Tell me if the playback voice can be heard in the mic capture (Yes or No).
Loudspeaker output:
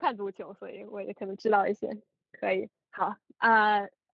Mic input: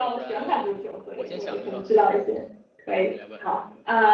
Yes